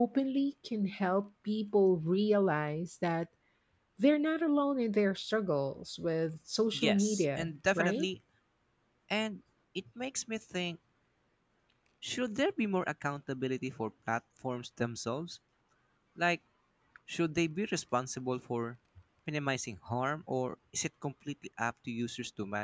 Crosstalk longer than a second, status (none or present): present